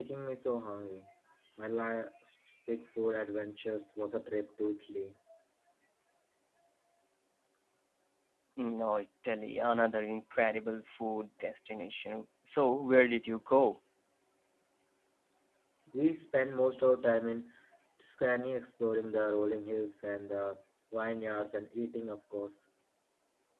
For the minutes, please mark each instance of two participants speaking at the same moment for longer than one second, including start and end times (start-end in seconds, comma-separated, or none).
none